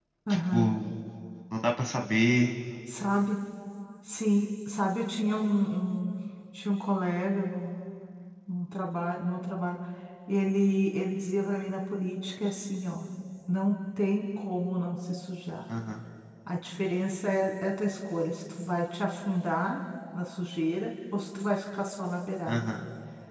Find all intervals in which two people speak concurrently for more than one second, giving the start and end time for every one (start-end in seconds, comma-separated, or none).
none